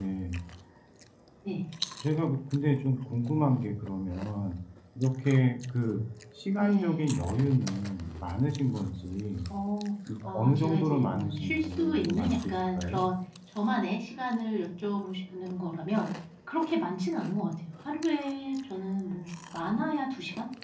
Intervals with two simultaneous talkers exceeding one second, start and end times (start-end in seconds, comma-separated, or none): 10.2-13.0